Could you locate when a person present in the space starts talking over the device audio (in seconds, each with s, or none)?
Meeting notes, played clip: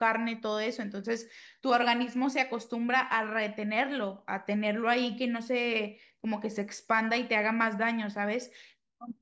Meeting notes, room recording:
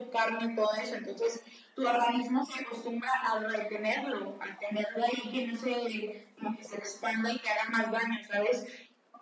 none